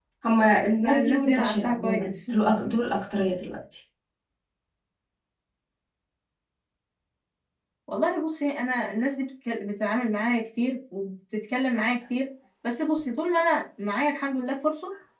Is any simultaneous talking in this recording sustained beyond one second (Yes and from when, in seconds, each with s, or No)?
Yes, from 0.8 s